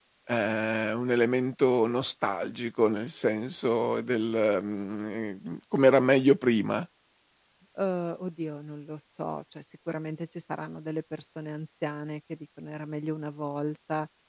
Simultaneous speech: No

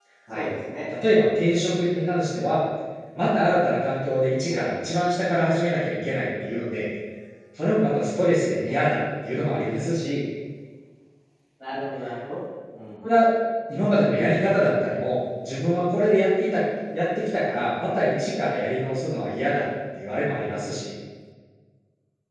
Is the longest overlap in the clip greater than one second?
No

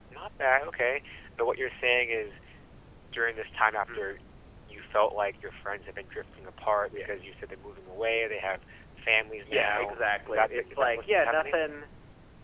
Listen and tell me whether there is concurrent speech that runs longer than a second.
Yes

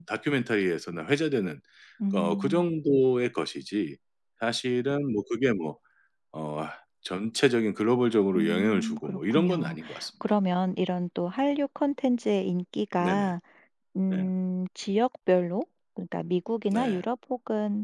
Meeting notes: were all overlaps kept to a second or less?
No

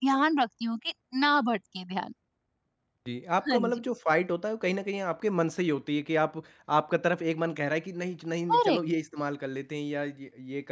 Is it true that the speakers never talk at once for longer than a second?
Yes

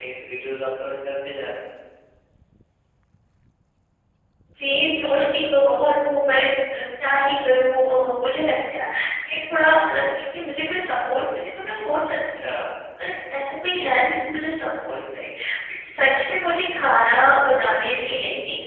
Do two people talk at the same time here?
No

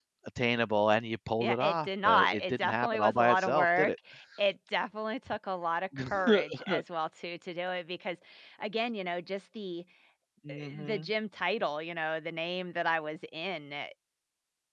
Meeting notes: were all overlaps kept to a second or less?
No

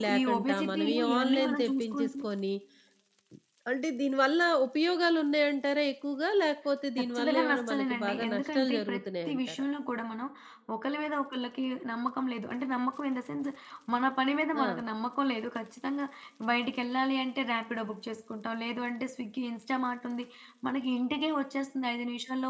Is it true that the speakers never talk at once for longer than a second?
No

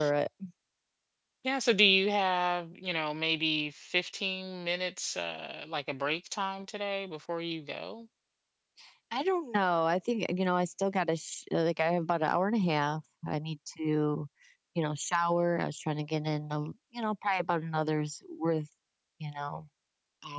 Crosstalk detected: No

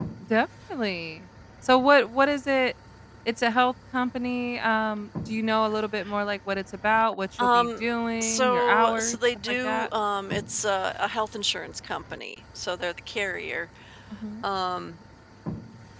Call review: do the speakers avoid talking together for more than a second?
No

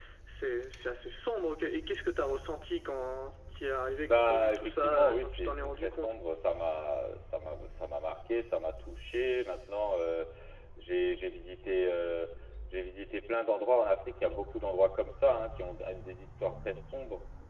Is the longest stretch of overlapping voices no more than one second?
No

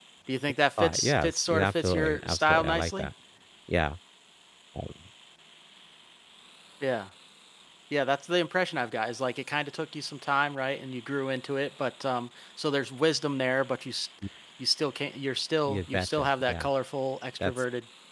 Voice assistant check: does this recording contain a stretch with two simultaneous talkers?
Yes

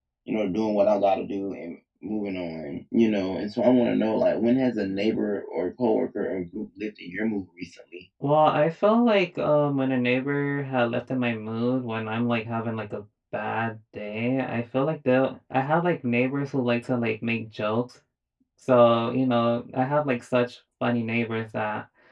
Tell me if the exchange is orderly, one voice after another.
Yes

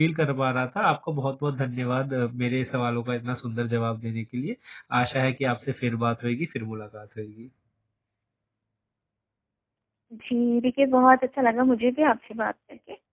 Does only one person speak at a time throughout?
Yes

